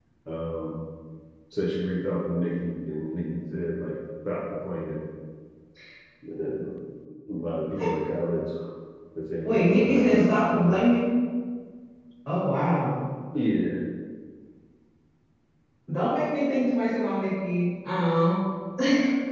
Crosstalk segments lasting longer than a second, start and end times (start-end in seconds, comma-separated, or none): 9.4-10.8